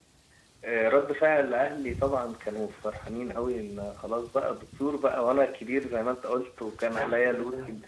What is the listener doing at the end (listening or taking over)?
listening